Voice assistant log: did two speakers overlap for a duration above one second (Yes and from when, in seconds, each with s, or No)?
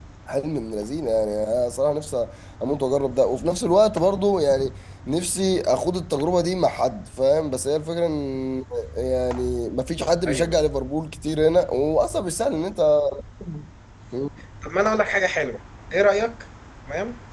No